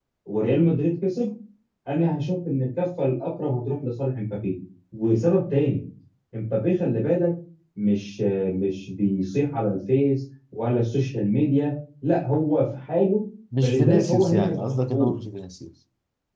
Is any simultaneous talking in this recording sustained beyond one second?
Yes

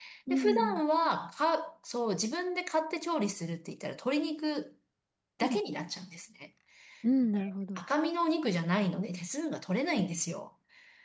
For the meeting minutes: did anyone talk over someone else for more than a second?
No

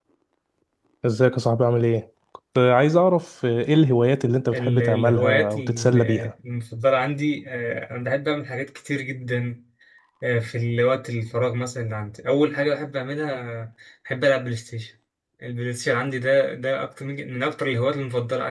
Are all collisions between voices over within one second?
No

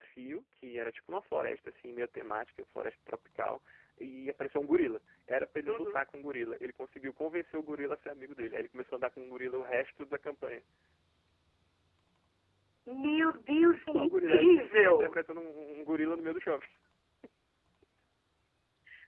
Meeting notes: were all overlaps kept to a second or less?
No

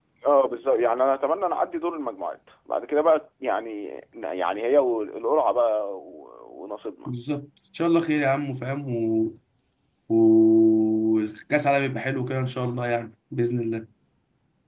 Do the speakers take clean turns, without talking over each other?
Yes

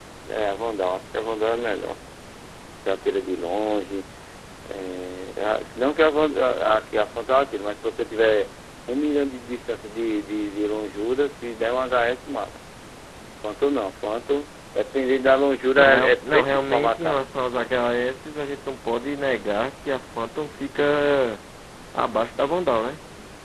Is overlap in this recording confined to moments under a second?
No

